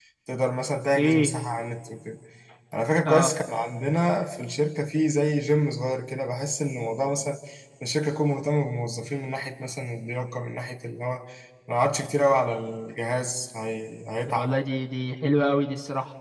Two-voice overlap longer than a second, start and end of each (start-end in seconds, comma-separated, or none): none